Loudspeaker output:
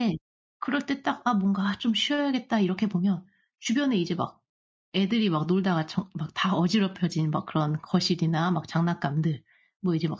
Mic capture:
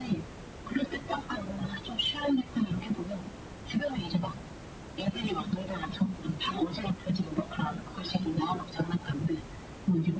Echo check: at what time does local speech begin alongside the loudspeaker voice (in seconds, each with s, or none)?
none